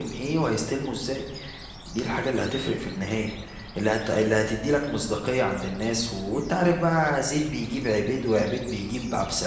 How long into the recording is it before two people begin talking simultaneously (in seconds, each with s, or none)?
none